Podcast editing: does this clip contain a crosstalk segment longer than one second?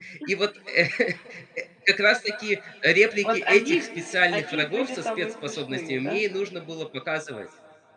Yes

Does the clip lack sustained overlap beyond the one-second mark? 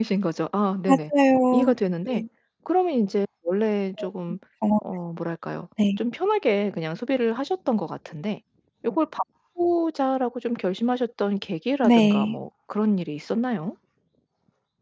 Yes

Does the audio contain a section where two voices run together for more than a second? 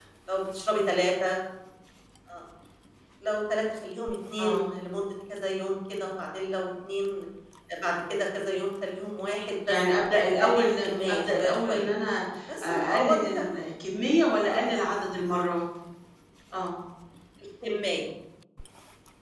Yes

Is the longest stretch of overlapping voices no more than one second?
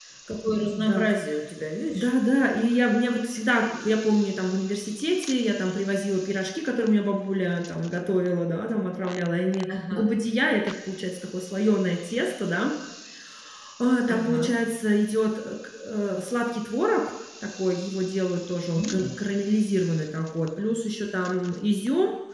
Yes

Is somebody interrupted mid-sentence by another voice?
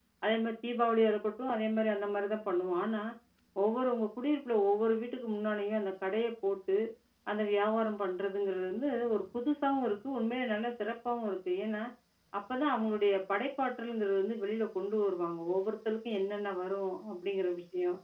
No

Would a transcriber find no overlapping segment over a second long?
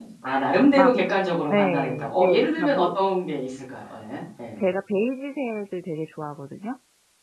No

